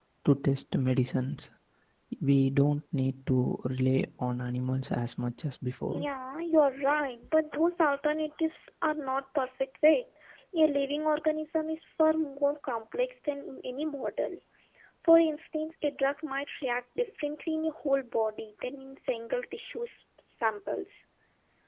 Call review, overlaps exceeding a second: none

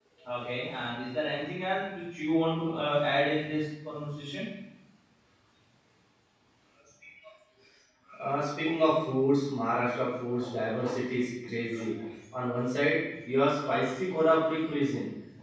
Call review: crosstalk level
none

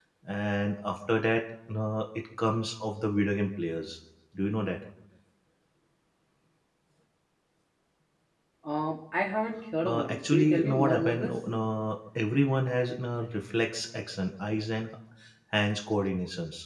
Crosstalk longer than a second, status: present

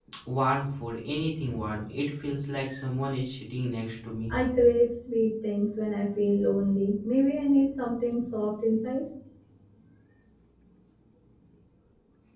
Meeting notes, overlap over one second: none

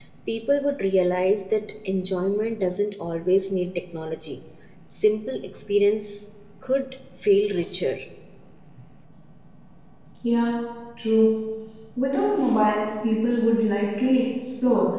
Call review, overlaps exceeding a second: none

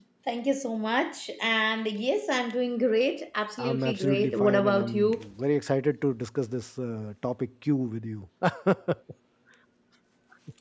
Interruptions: present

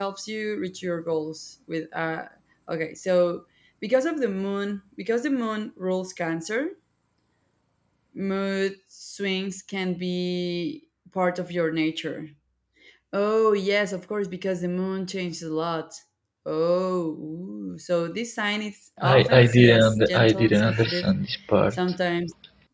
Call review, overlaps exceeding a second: present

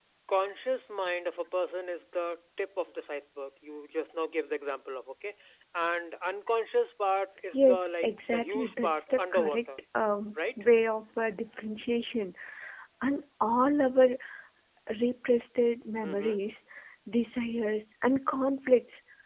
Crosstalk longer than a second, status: present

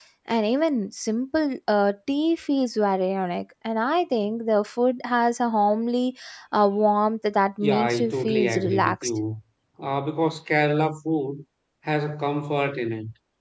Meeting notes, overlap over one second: present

